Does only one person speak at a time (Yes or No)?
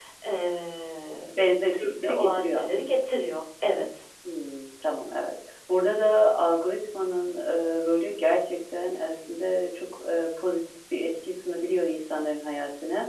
No